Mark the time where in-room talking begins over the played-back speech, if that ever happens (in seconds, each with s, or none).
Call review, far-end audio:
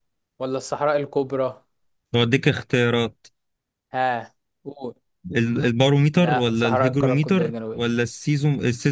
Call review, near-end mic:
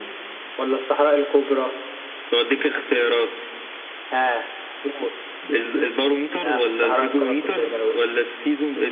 none